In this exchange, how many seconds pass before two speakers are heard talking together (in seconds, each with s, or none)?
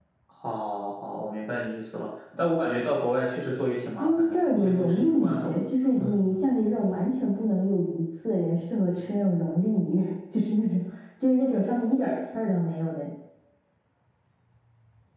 4.0 s